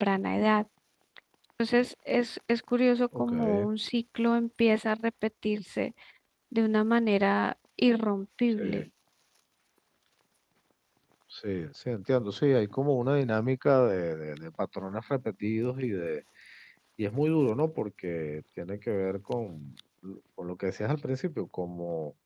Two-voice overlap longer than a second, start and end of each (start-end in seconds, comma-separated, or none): none